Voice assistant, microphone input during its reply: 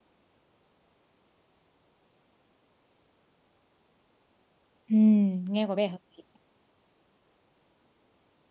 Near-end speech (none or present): present